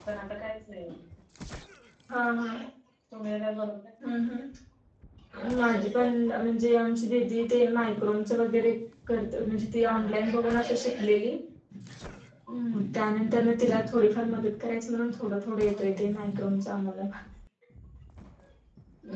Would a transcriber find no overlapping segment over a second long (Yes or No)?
Yes